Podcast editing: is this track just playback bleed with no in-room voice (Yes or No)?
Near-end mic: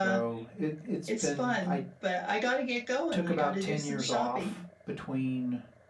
Yes